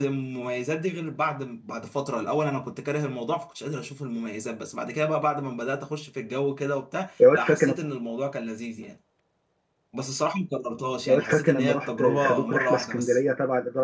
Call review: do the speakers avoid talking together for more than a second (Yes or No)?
No